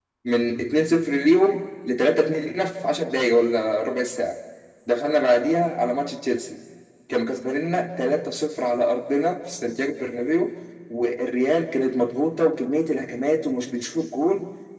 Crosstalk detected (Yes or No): No